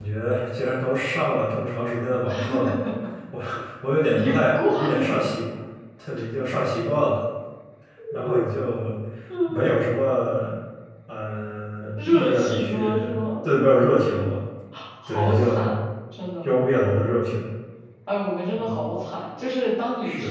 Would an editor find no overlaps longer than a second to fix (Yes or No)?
No